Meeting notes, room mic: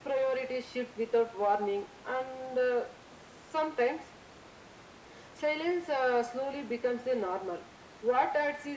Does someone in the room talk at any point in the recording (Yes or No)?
No